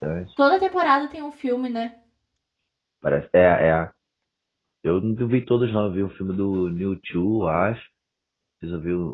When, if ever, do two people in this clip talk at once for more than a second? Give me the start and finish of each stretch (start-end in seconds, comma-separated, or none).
none